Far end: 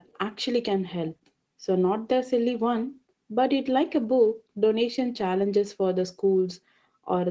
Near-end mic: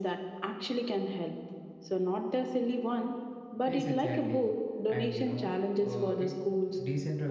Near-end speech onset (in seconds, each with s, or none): 3.6 s